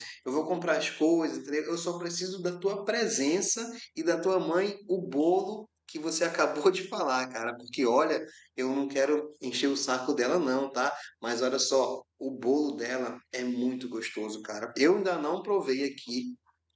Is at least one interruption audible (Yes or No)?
No